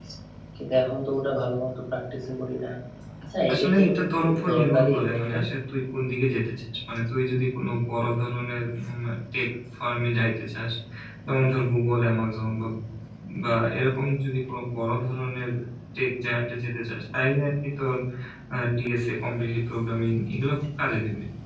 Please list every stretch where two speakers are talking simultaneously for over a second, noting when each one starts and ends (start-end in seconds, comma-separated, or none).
3.5-5.3